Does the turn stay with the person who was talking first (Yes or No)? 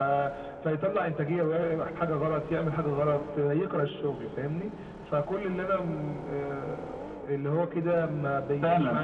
No